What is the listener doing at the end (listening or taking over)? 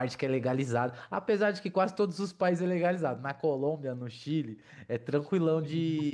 listening